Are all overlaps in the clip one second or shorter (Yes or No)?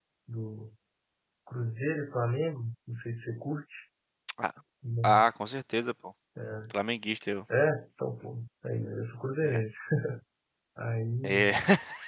Yes